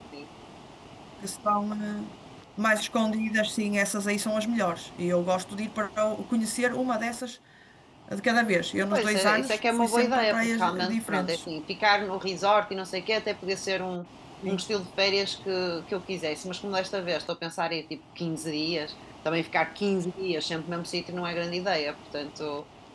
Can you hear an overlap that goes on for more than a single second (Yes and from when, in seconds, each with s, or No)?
Yes, from 8.9 s